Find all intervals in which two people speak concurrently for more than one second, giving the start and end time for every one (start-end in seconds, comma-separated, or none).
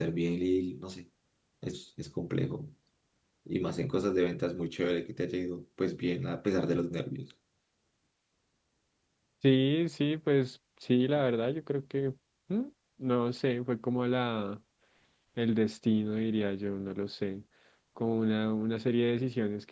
none